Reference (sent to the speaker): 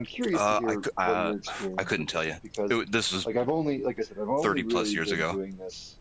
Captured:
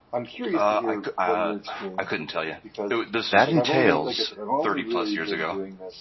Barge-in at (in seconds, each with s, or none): 3.3 s